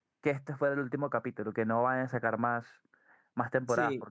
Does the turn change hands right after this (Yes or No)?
Yes